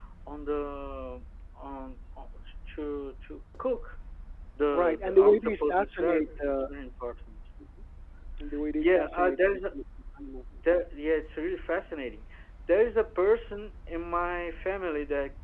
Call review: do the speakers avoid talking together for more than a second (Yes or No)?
No